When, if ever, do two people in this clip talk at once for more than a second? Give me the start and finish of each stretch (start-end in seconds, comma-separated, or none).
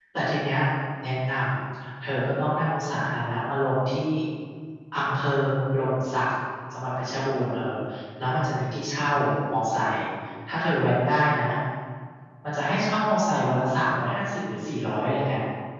none